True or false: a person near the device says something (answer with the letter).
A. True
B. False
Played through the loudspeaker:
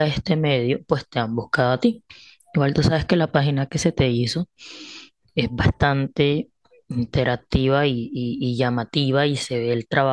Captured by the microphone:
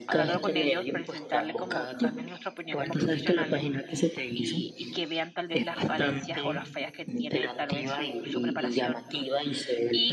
A